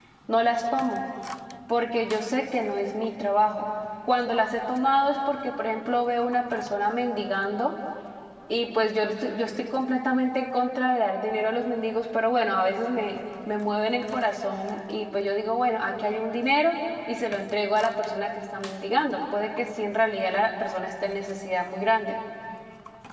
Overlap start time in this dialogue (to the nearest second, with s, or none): none